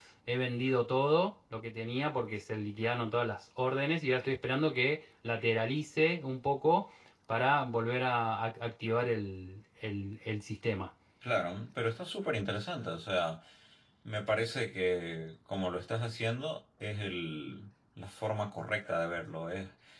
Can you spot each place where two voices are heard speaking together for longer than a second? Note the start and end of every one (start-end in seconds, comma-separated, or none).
none